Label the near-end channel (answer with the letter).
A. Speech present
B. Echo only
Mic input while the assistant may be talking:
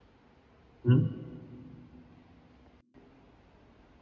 A